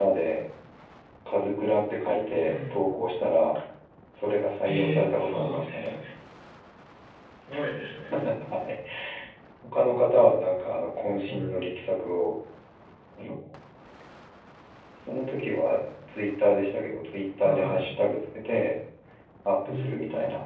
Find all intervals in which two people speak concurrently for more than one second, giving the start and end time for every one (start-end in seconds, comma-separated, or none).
4.6-6.0